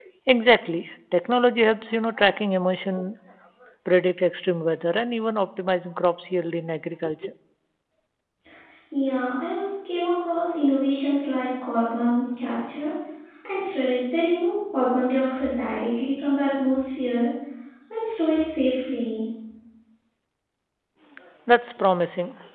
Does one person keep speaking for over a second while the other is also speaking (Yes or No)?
No